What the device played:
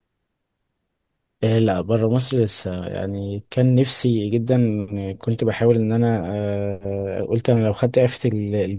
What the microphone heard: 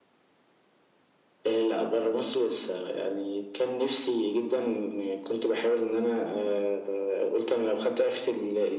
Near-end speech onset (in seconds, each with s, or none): none